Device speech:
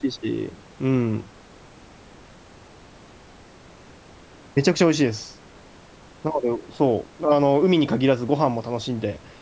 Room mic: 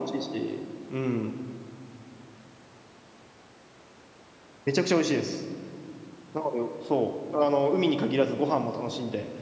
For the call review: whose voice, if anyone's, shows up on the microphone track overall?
echo only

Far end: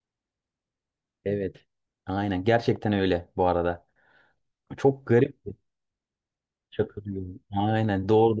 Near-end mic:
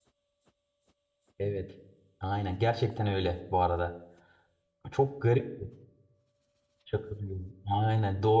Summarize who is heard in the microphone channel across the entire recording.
echo only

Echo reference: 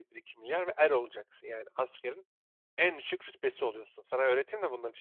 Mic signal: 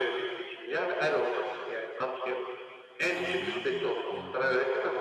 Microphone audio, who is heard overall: both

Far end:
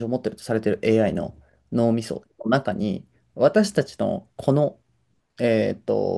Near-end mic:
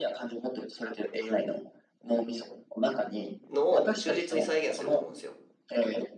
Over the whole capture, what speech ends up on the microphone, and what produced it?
both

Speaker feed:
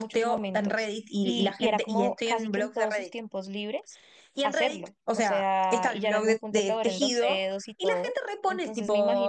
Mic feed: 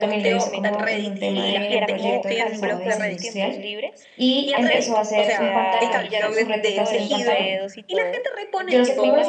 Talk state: both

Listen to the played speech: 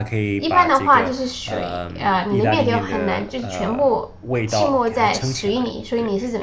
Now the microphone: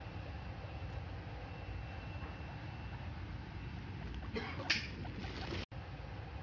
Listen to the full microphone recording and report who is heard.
neither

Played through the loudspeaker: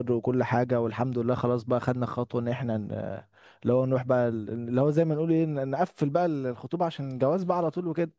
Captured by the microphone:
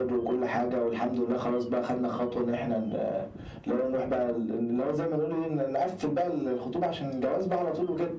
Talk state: echo only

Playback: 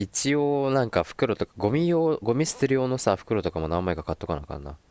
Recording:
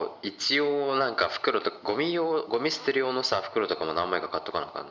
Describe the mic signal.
echo only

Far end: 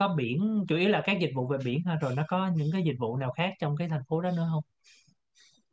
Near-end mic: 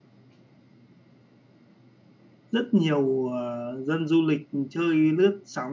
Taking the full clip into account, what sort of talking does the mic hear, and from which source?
user only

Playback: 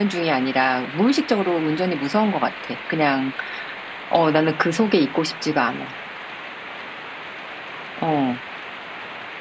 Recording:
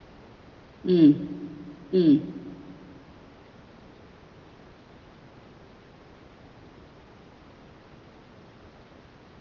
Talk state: user only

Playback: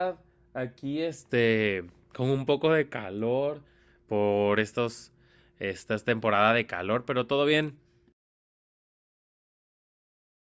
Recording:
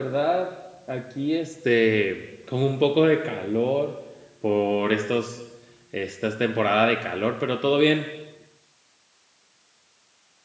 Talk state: echo only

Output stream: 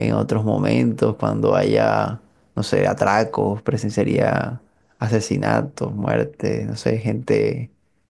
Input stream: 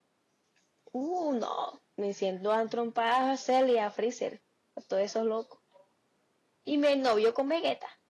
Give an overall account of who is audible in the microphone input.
user only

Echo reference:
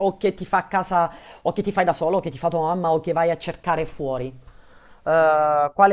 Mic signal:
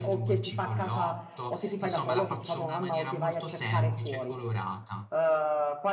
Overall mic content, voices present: both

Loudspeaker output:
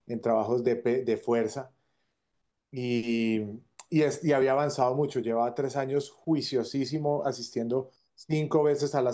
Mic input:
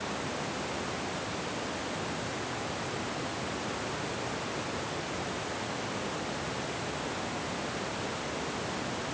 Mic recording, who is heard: neither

